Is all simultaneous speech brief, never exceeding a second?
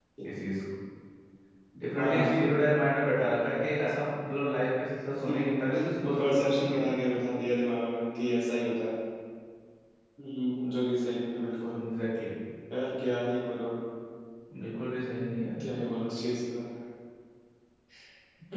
No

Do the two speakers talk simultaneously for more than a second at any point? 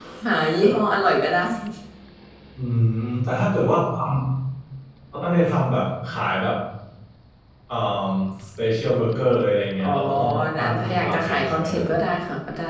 Yes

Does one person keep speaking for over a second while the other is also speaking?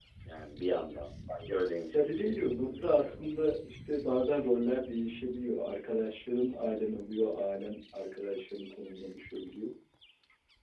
Yes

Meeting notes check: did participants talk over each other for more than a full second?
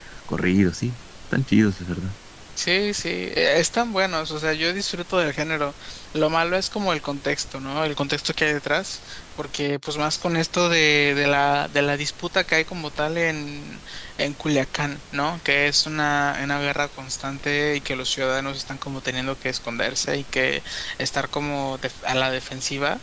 No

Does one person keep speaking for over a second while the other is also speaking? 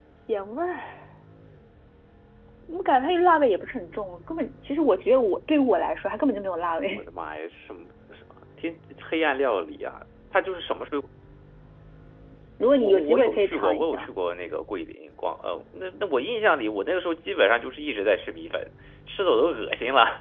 Yes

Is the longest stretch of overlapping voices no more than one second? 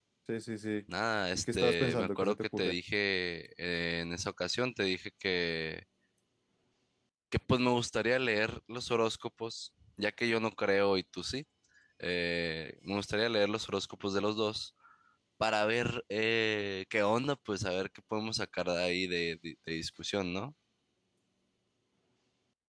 No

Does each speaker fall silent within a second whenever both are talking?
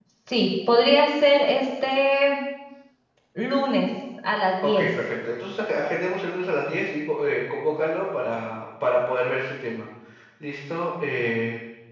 Yes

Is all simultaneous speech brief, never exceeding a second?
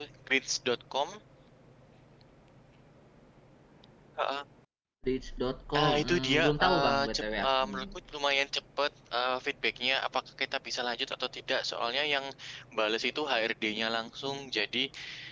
No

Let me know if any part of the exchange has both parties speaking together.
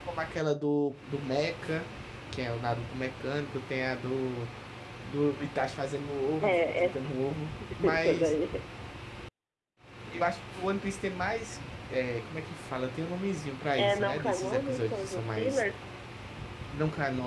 Yes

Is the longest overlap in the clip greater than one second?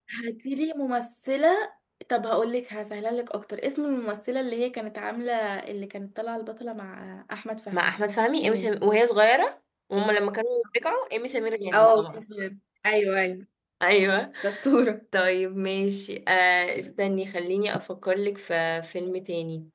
No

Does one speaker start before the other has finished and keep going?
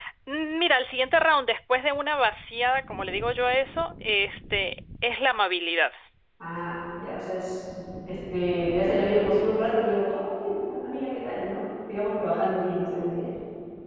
No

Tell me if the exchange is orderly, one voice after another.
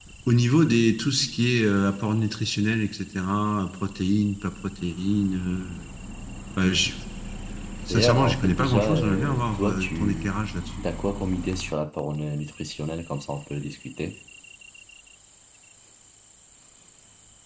No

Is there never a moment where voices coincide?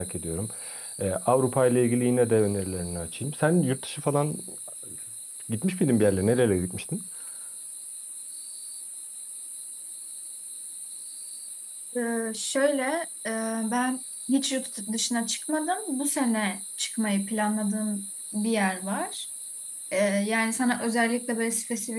Yes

